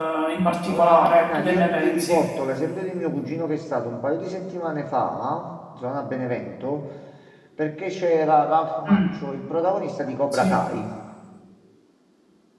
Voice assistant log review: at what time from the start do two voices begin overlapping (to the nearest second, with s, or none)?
1 s